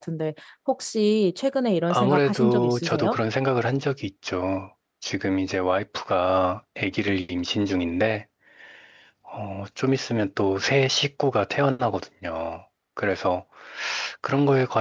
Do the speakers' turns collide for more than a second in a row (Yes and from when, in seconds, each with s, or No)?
Yes, from 1.9 s